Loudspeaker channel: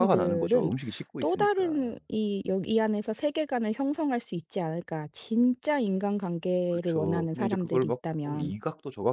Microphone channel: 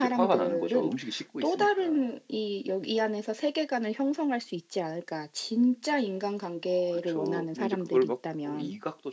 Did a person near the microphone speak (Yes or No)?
No